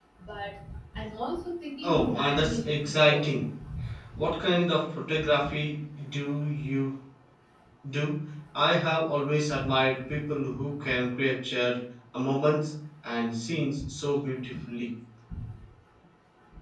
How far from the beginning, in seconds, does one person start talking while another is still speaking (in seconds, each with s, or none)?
1.8 s